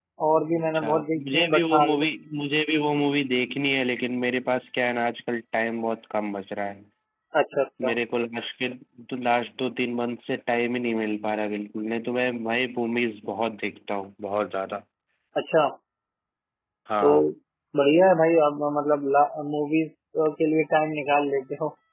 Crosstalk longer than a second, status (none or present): present